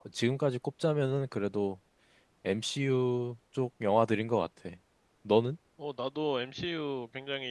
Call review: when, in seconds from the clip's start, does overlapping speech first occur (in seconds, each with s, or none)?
none